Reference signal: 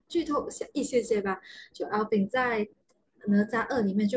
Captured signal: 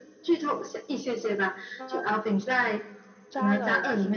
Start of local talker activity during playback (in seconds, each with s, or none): 1.8 s